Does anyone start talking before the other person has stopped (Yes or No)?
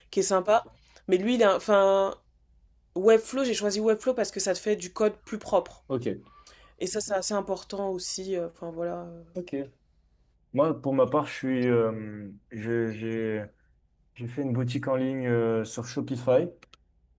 No